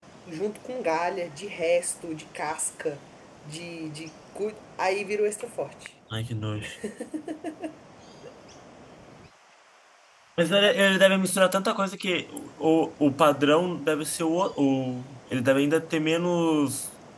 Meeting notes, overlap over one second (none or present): none